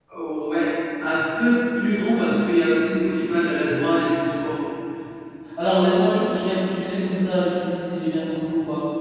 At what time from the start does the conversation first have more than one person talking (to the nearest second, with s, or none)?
none